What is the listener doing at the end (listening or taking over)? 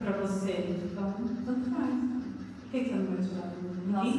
taking over